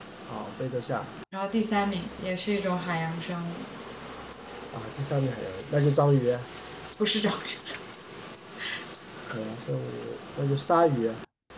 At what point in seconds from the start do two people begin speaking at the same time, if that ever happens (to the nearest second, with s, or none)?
none